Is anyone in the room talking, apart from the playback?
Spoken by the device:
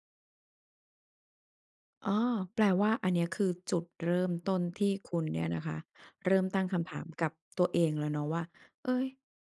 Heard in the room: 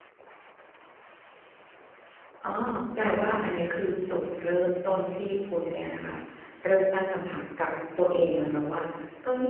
No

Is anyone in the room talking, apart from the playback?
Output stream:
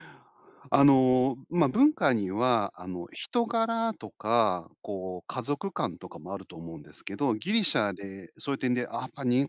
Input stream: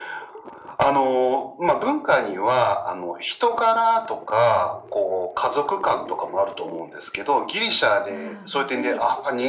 Yes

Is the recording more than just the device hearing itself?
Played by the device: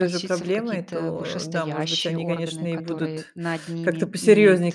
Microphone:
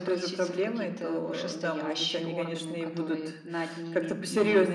No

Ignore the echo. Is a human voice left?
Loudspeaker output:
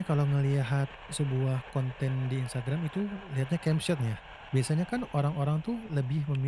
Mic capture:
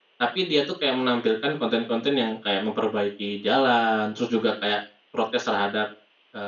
Yes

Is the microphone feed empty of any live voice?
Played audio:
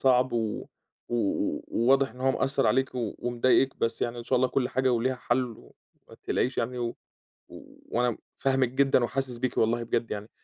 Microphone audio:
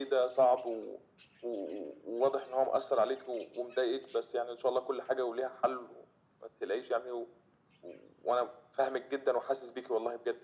Yes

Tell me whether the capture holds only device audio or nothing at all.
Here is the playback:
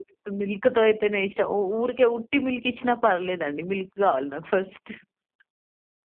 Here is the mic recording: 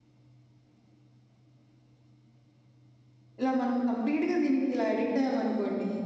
No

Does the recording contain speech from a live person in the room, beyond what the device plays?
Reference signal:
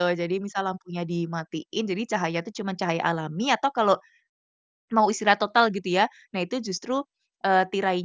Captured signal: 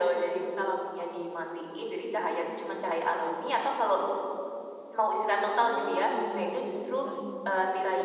Yes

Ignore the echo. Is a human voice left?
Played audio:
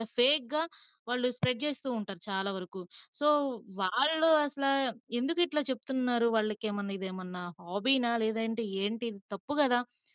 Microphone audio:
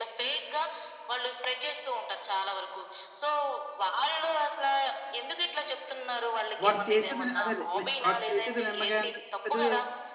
Yes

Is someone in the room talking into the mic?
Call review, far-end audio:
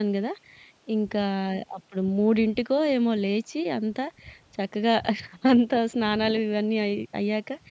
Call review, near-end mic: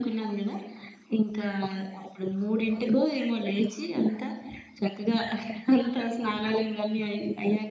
No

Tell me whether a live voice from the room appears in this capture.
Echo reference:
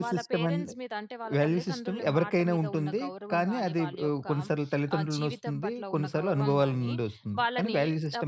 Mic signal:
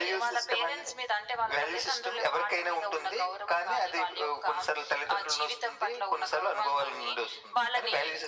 No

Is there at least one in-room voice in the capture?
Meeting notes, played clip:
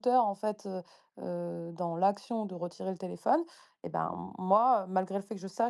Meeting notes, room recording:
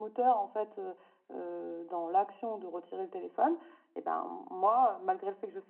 No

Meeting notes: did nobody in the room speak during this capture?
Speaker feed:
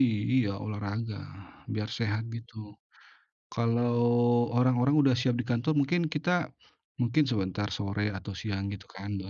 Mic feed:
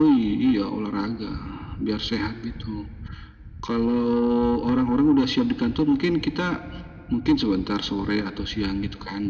Yes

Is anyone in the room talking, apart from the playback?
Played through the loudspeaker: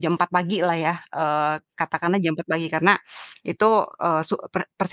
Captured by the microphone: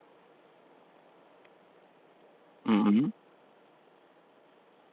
Yes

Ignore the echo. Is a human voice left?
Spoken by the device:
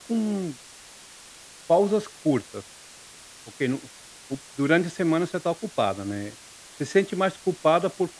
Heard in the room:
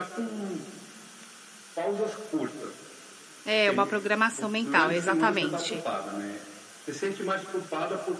Yes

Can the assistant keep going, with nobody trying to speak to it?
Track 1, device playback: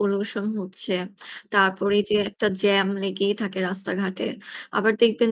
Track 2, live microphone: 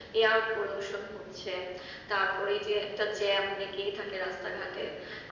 Yes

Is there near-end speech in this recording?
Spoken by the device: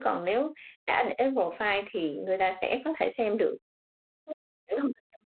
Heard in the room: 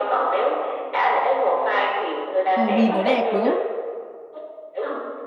Yes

